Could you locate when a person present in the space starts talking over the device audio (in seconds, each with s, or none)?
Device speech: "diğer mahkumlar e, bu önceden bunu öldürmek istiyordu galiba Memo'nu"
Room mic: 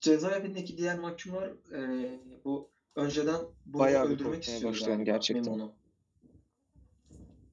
3.8 s